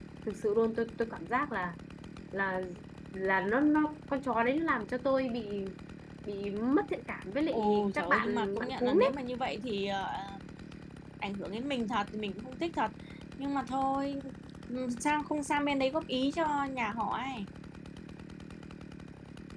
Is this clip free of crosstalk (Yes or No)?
No